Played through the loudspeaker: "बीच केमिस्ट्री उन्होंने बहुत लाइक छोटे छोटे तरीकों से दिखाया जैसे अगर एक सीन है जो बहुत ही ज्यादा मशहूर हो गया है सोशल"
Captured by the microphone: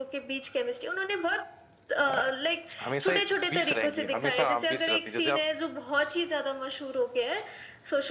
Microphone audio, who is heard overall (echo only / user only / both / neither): both